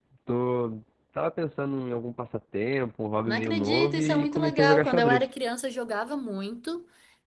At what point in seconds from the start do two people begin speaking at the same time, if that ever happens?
3 s

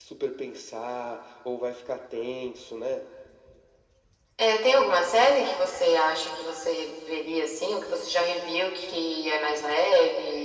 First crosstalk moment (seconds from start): none

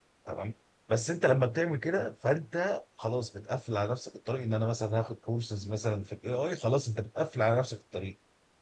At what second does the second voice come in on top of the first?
none

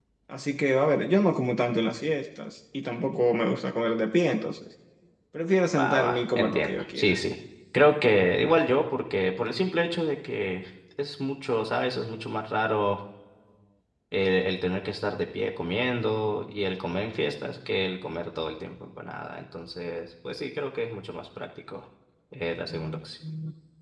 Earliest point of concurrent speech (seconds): 6 s

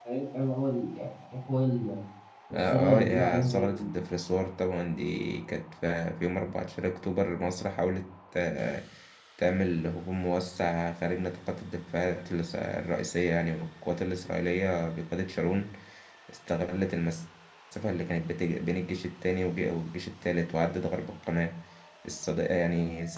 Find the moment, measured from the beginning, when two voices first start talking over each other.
3 s

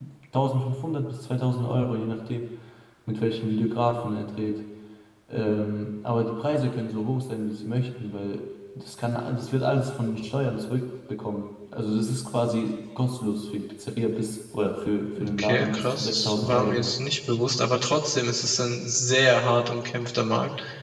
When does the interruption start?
15 s

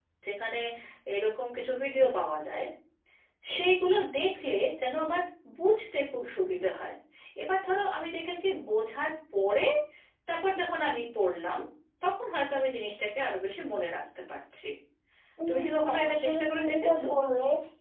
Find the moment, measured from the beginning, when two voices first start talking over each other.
15 s

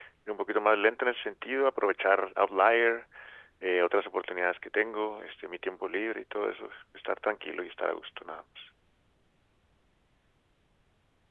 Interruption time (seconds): none

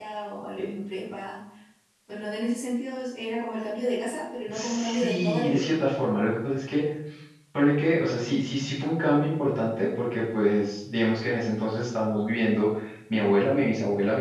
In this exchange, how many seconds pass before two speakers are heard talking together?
4 s

